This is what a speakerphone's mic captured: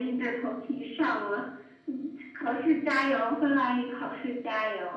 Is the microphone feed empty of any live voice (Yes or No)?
Yes